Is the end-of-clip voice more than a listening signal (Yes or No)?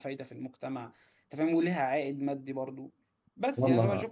No